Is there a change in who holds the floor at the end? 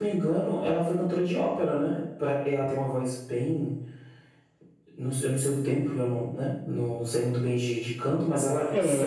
Yes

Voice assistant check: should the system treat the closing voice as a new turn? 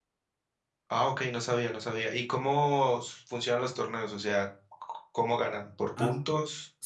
Yes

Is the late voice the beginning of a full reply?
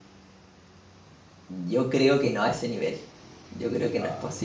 No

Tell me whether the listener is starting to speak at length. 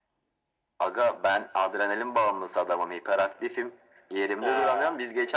No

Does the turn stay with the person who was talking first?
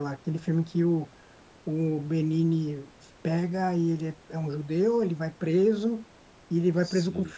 Yes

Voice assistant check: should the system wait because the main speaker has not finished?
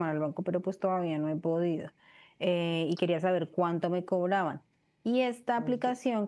Yes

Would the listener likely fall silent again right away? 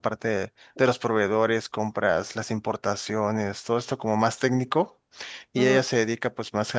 Yes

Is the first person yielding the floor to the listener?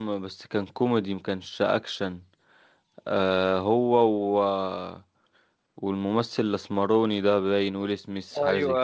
Yes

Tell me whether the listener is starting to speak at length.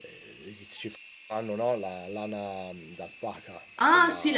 Yes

